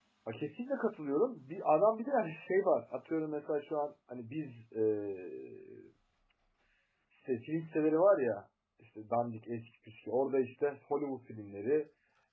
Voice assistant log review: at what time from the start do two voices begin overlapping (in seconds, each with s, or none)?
none